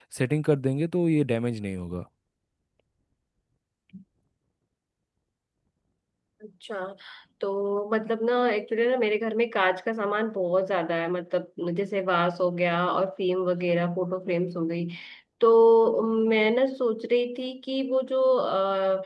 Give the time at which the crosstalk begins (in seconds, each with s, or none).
none